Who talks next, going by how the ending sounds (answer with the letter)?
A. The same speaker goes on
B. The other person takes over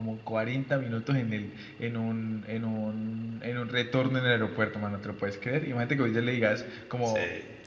A